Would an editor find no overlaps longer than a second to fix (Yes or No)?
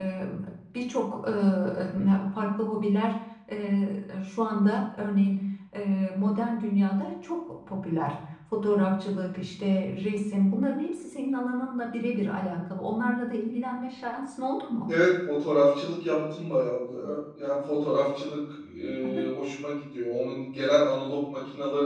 Yes